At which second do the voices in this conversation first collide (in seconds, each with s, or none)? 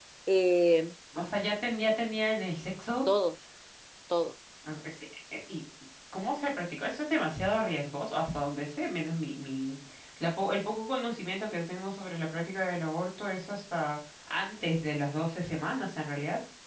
none